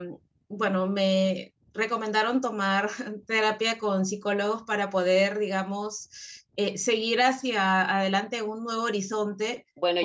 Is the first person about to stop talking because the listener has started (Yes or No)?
Yes